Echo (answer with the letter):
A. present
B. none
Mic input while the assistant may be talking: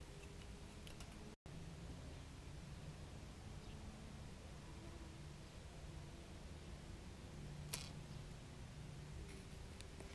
B